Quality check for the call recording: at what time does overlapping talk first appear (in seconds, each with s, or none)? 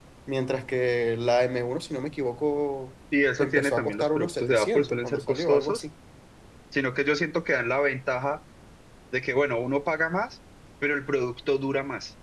3.4 s